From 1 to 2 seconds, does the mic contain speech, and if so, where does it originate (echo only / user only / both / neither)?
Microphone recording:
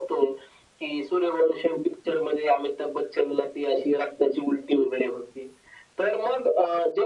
echo only